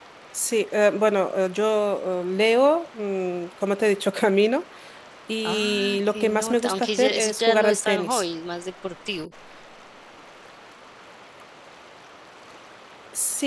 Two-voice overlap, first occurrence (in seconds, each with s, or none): 5.5 s